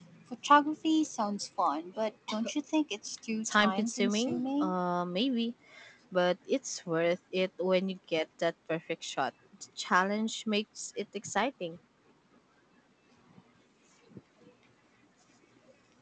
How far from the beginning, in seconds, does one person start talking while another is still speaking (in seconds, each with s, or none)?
3.4 s